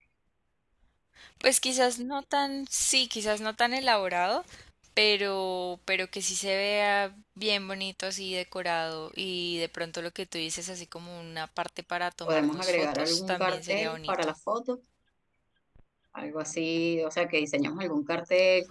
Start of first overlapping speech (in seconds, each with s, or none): 12.2 s